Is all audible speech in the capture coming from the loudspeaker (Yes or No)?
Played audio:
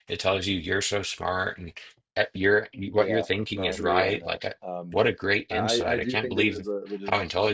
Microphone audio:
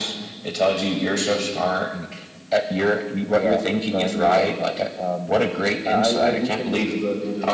Yes